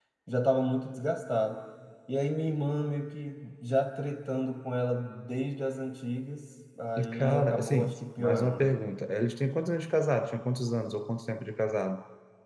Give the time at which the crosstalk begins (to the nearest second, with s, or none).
7 s